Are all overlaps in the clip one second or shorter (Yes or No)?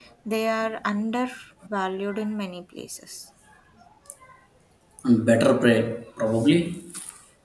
Yes